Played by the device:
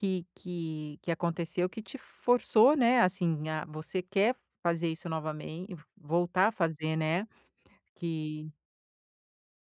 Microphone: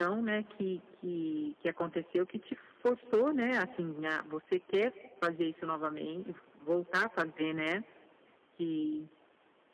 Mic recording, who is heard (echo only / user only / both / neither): echo only